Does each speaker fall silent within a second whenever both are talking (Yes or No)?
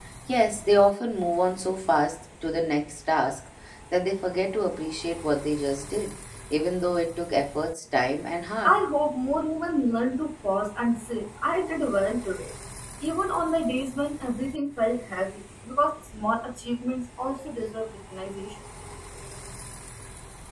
Yes